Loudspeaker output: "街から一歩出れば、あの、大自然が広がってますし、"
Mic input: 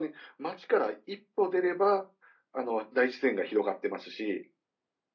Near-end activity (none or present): none